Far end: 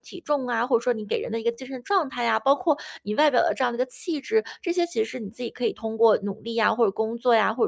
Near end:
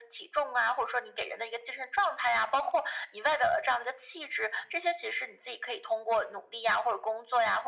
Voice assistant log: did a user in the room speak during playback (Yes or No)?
No